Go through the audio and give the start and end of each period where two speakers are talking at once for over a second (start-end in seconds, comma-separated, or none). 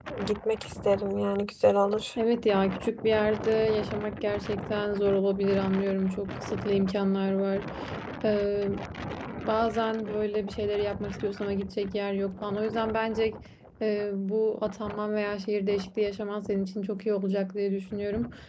none